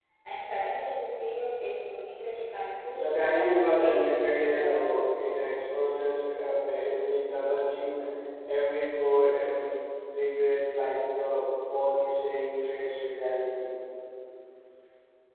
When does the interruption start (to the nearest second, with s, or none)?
3 s